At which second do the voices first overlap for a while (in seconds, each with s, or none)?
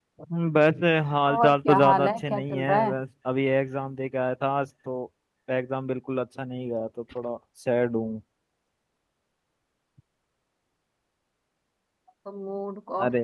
1.3 s